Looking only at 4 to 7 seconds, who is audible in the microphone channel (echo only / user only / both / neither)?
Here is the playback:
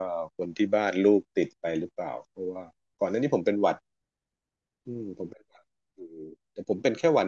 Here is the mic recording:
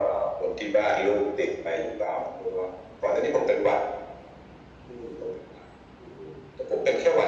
echo only